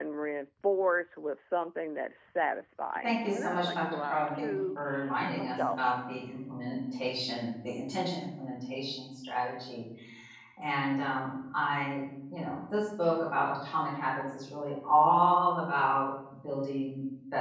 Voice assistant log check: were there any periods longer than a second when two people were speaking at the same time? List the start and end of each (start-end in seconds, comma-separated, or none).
3.0-4.5